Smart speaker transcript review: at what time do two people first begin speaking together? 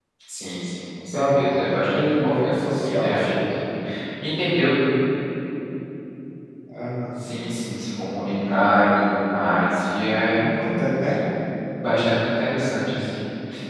1.1 s

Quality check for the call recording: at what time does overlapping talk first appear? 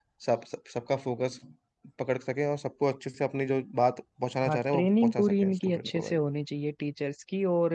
4.4 s

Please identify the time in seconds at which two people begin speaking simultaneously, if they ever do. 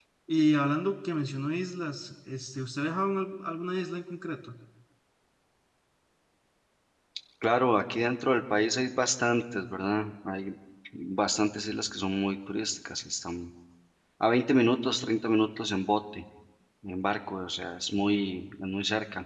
none

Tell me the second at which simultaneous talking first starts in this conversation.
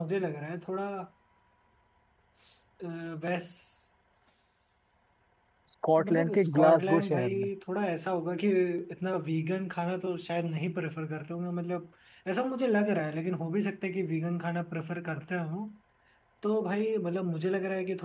6.0 s

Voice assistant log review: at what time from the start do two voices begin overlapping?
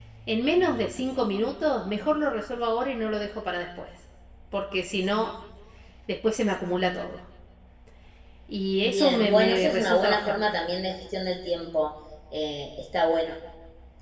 8.8 s

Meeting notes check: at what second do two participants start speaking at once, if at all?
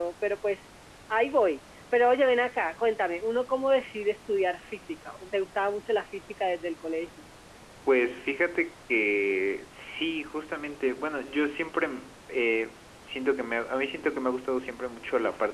none

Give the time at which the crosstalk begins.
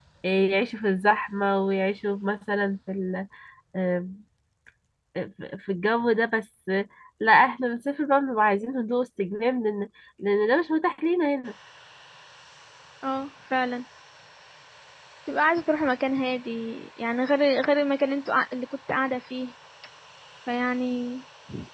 none

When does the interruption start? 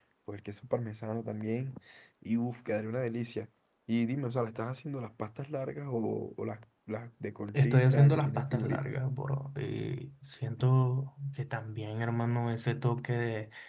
7.5 s

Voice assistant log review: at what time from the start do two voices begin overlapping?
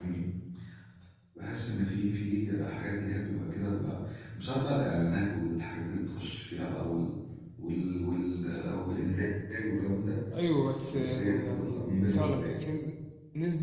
10.9 s

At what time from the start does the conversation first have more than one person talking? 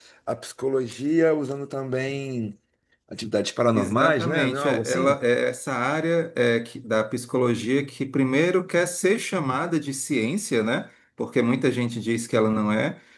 3.7 s

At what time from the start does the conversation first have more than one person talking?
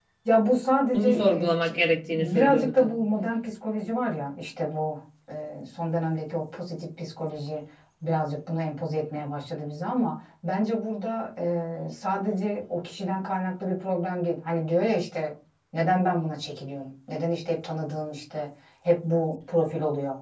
0.9 s

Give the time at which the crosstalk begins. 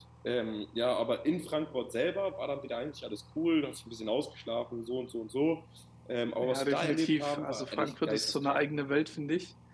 6.4 s

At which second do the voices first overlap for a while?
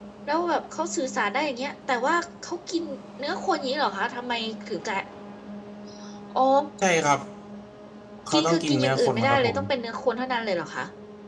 8.3 s

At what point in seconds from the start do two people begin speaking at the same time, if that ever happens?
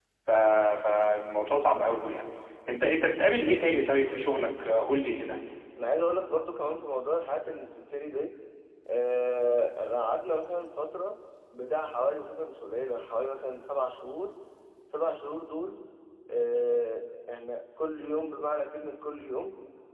none

